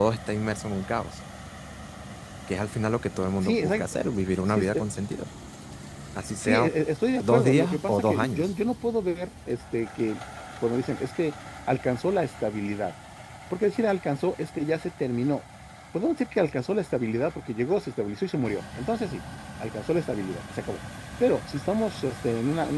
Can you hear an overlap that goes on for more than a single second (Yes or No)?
Yes